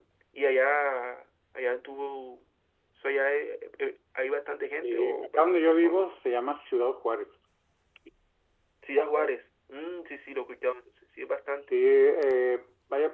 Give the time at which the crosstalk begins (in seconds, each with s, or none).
4.8 s